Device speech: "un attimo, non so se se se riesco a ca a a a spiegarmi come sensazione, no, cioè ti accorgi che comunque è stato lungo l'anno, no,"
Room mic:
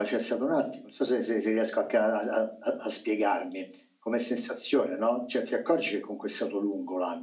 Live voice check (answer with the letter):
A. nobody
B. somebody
A